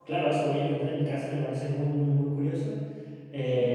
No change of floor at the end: No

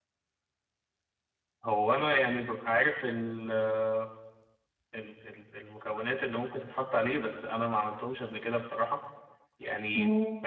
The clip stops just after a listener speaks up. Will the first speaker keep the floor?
Yes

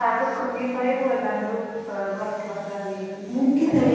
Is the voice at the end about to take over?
Yes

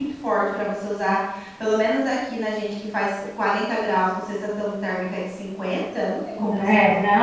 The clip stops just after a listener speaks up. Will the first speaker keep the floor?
No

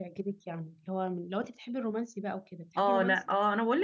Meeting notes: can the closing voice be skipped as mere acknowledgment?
No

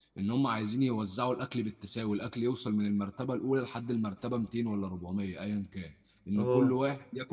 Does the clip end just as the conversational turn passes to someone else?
No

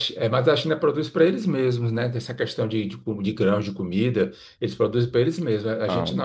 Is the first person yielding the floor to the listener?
No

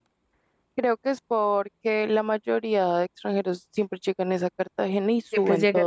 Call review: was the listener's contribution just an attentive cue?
No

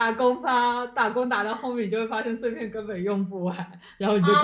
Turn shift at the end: Yes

